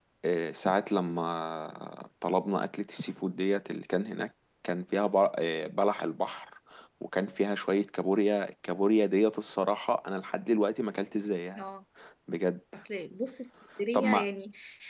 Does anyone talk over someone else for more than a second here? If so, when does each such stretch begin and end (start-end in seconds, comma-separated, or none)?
none